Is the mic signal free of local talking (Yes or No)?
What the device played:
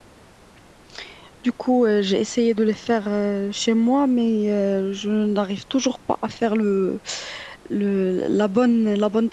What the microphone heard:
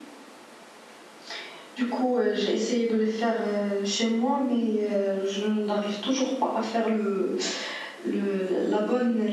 Yes